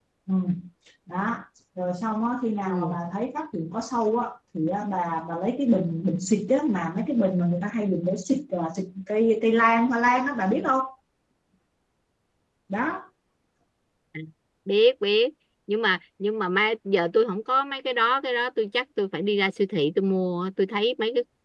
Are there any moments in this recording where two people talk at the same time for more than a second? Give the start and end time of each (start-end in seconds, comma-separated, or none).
none